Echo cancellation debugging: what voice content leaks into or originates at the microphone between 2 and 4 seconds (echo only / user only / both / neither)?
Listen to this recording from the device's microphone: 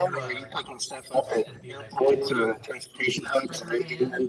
both